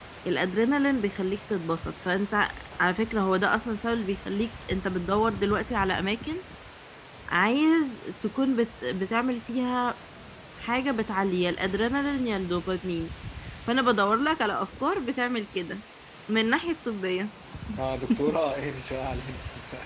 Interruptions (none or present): none